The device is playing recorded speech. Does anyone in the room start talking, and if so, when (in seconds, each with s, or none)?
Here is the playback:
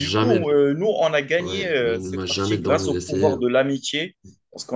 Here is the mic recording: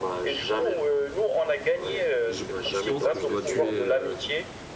2.3 s